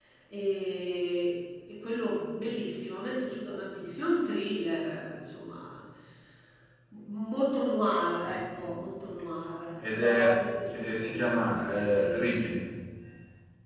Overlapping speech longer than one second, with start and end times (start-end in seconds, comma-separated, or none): 10.8-12.2